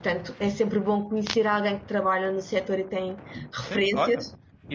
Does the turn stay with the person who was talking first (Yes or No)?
No